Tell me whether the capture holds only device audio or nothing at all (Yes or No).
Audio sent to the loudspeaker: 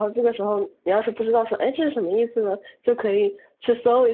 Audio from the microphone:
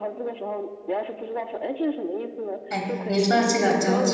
No